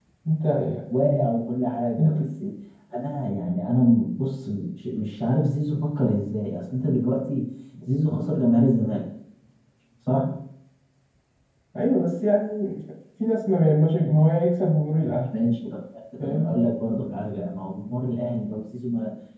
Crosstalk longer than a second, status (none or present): none